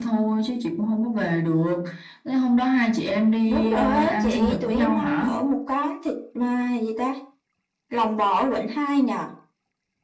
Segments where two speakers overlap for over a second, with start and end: 3.5-5.3

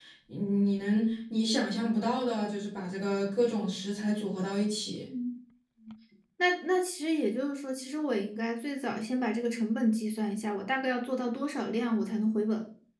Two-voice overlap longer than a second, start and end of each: none

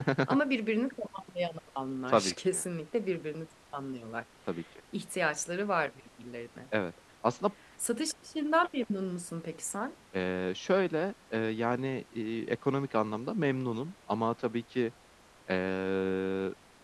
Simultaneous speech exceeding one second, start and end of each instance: none

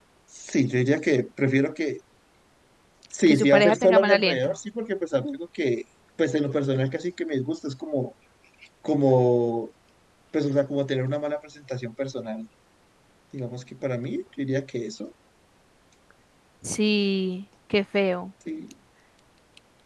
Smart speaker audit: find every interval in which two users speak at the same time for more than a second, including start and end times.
3.3-4.5

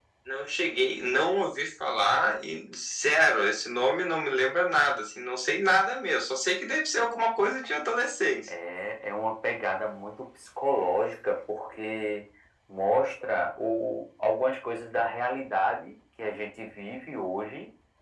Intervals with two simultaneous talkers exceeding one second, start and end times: none

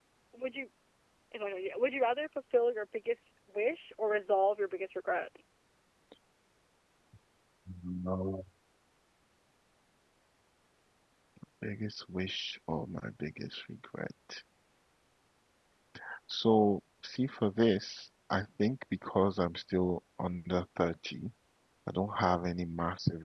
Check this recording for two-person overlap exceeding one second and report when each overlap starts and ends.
none

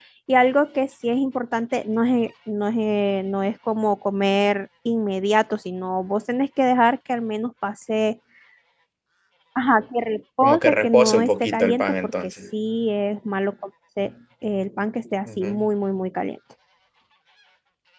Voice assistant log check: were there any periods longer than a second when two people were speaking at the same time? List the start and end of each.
10.4-12.3

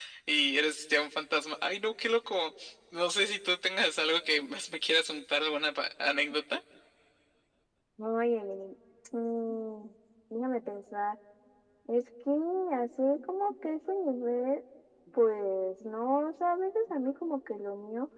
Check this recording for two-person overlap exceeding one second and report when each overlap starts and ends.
none

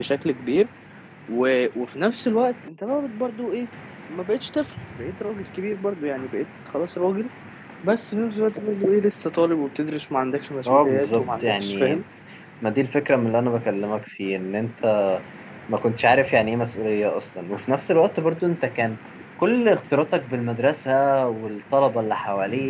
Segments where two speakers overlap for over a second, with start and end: 10.7-12.0

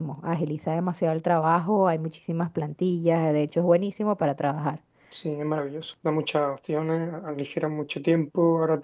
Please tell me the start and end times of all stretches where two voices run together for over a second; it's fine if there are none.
none

